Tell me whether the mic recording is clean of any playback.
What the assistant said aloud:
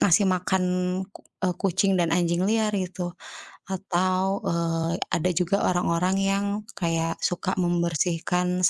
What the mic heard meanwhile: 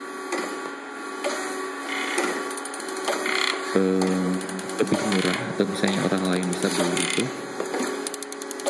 Yes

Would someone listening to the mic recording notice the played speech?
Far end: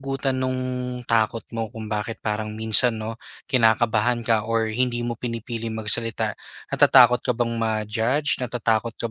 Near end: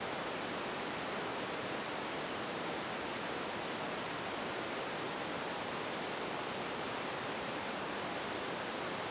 No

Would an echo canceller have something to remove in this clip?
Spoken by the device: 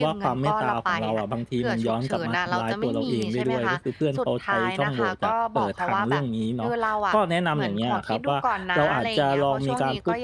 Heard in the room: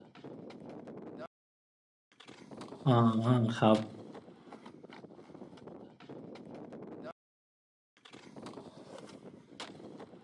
No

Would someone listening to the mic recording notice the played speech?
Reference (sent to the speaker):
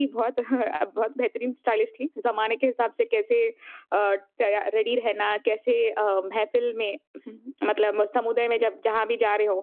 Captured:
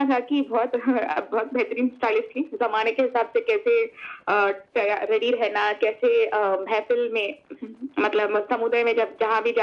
Yes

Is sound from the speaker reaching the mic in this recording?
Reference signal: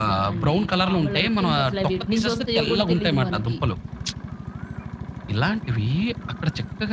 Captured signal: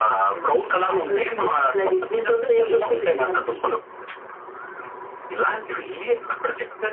Yes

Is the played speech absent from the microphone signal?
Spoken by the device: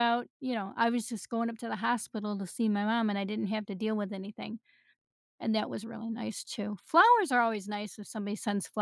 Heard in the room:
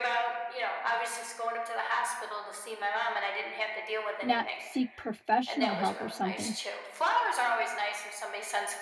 No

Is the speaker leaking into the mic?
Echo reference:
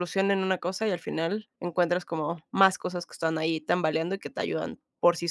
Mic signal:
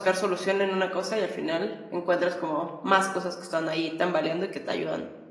Yes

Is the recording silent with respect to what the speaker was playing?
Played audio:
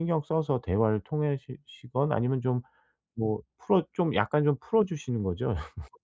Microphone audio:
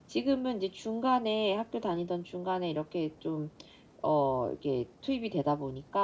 Yes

